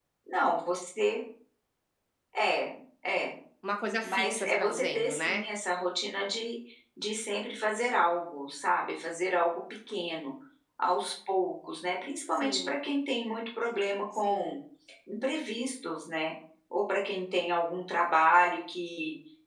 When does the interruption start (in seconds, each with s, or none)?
4.0 s